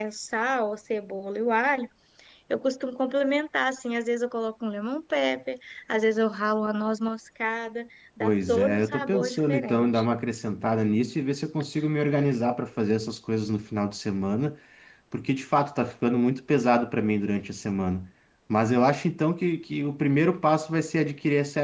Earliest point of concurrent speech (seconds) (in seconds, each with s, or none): 8.2 s